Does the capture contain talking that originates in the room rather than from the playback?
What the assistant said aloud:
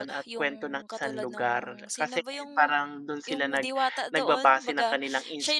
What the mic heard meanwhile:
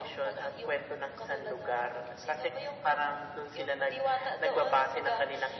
No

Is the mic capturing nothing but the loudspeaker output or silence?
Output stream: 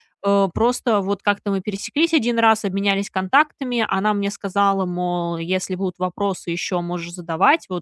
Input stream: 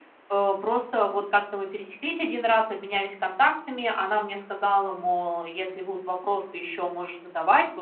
Yes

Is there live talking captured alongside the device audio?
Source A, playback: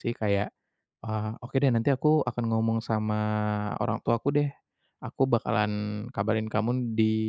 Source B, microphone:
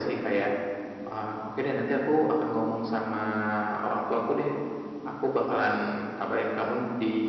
No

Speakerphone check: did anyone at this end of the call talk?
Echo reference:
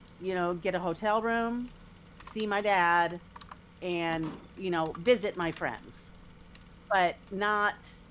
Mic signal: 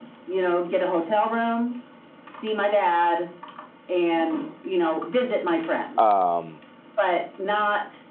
Yes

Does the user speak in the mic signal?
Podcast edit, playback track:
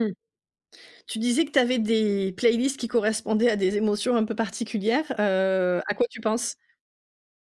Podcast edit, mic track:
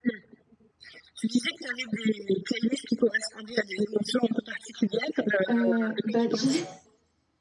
Yes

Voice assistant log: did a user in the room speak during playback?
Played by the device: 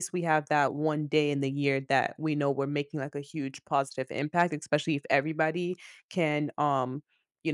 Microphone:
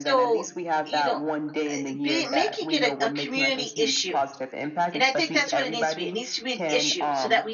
Yes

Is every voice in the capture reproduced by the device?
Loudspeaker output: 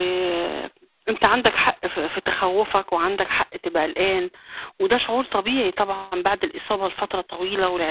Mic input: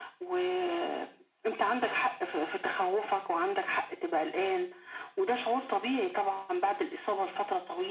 Yes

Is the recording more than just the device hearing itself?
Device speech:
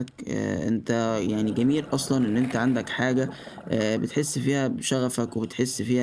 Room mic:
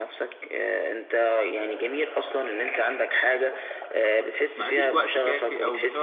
Yes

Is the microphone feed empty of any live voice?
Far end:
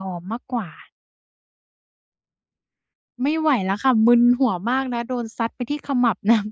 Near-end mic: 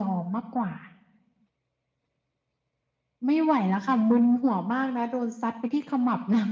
Yes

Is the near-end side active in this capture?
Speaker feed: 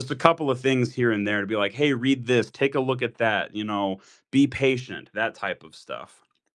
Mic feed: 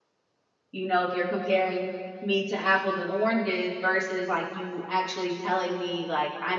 Yes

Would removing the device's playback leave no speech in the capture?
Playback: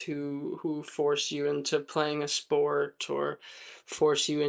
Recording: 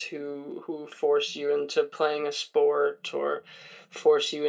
Yes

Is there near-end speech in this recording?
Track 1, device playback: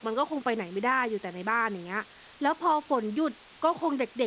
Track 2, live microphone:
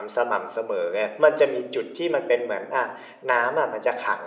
Yes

